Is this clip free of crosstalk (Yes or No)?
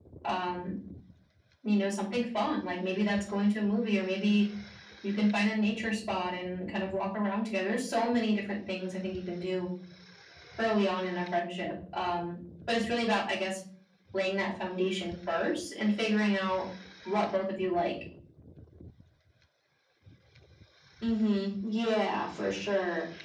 Yes